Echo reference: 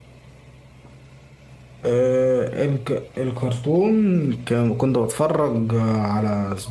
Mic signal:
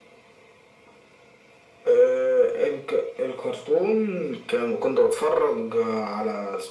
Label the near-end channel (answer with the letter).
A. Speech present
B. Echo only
B